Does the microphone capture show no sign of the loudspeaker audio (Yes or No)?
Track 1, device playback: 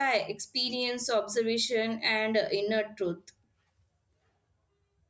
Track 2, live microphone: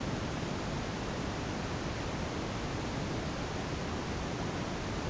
Yes